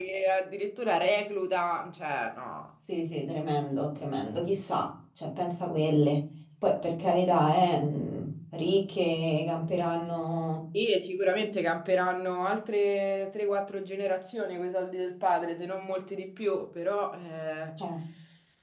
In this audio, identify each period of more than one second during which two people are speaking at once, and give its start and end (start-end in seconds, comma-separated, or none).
none